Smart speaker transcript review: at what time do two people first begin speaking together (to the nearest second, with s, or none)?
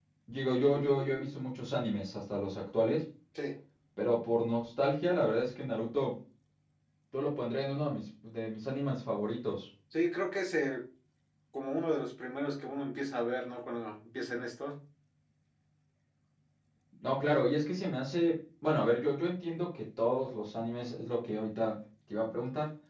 none